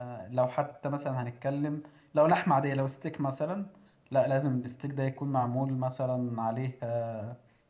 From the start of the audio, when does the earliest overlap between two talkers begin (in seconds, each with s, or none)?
none